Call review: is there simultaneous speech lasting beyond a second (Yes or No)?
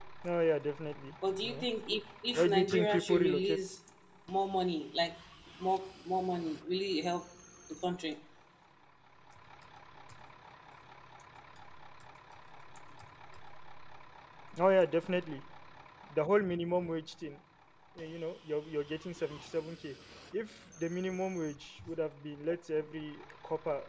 Yes